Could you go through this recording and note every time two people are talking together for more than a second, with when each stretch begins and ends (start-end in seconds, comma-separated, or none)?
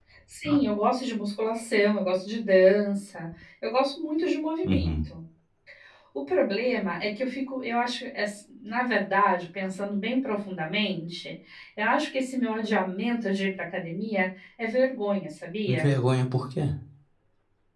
none